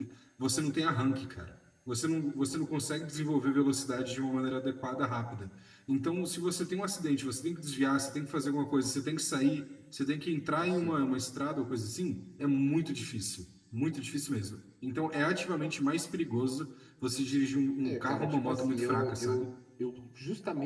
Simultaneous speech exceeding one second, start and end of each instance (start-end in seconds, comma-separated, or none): 17.8-19.5